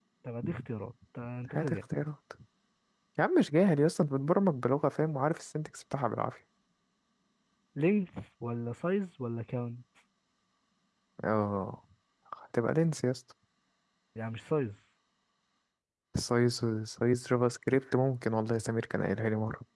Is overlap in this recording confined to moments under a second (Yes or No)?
Yes